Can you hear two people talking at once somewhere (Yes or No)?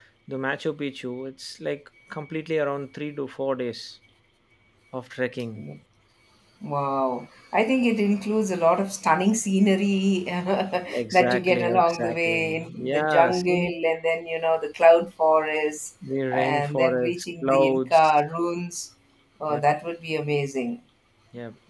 Yes